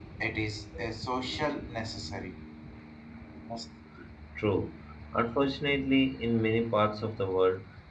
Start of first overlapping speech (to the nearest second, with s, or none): none